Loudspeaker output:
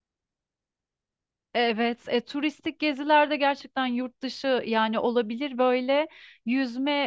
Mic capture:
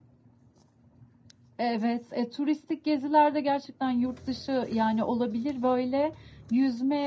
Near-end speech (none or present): none